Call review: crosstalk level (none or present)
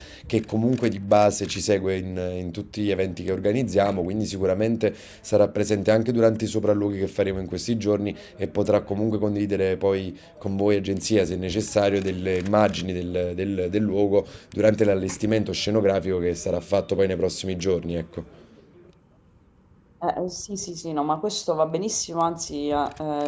none